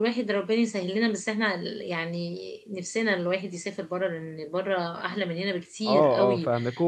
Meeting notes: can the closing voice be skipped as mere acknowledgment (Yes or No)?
No